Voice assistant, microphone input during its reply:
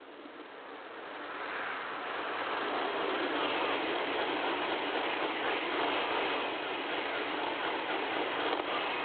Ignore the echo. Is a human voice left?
No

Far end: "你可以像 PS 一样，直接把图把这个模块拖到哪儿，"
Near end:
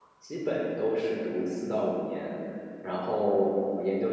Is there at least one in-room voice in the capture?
Yes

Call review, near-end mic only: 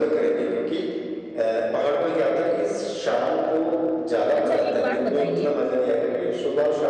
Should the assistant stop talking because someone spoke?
Yes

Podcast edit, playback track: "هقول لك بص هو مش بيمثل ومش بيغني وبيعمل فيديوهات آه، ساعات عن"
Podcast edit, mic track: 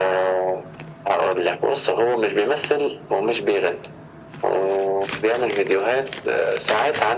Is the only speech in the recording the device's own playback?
Yes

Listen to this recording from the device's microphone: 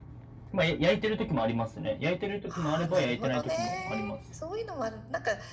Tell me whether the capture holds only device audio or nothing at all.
No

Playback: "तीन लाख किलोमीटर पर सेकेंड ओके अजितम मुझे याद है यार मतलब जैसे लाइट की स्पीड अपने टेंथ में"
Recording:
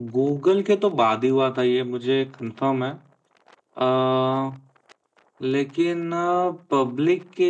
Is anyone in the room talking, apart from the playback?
Yes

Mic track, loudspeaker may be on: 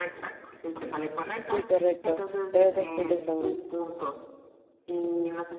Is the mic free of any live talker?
No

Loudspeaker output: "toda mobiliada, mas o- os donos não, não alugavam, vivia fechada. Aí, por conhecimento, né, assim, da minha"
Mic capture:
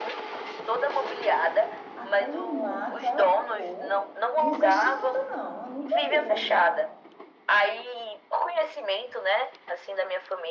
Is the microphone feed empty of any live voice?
No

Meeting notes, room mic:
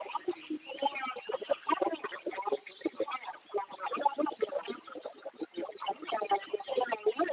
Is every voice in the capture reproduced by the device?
Yes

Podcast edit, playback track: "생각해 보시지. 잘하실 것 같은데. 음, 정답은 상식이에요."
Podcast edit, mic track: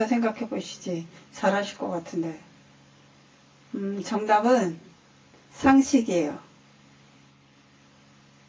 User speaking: No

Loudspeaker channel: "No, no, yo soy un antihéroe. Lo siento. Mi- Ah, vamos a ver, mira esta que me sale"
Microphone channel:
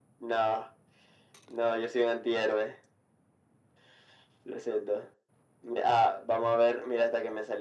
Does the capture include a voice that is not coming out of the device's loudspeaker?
No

